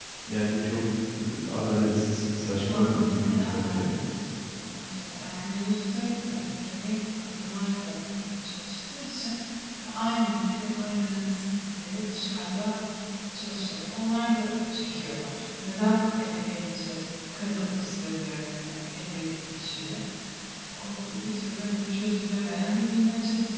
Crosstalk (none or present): present